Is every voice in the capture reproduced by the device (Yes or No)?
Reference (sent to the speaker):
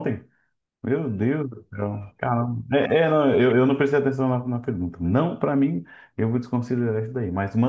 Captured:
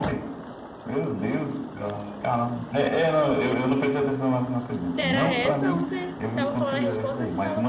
No